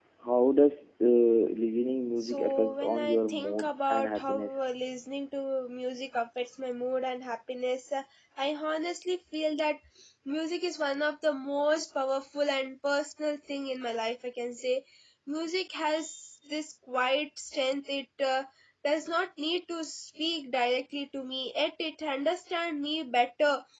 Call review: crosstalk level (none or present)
present